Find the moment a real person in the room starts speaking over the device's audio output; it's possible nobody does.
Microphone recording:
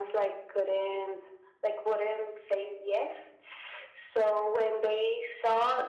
none

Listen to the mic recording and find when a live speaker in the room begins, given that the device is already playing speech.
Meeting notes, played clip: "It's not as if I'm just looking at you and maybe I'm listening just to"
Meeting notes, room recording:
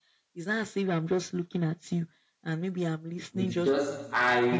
3.3 s

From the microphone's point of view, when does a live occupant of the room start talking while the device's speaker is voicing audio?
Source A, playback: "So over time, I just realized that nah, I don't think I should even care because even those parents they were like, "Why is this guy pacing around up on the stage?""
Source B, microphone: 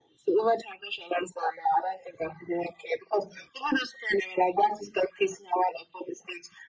none

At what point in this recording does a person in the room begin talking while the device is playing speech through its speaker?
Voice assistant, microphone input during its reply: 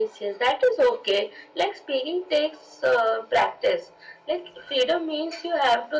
none

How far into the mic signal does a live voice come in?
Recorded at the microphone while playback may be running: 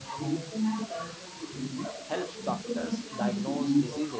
2.1 s

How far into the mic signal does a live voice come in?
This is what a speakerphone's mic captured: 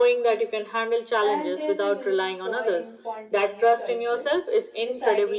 1.2 s

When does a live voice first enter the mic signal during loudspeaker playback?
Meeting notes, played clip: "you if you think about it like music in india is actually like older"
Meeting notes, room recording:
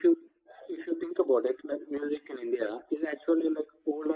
none

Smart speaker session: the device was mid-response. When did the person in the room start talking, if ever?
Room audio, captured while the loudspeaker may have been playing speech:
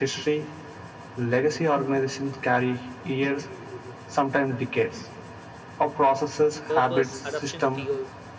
6.7 s

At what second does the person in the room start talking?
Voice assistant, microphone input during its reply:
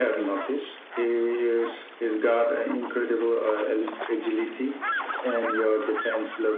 none

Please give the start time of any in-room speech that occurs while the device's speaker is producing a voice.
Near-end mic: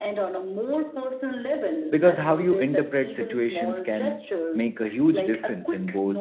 1.9 s

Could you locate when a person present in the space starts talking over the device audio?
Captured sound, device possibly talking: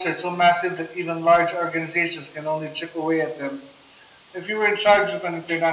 none

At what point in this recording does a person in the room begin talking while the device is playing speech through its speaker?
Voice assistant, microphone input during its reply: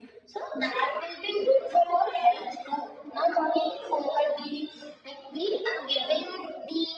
none

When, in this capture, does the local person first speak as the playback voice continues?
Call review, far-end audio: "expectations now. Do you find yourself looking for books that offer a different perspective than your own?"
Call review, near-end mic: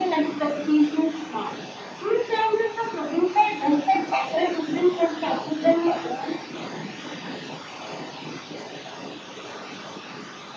none

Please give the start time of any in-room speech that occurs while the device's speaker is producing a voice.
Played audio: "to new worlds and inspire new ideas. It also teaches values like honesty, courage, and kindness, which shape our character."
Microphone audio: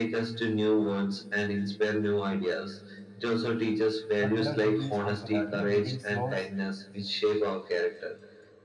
4.2 s

